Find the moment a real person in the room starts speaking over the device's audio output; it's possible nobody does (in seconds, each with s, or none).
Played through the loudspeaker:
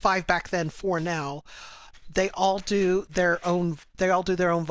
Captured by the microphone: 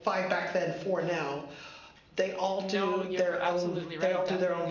2.6 s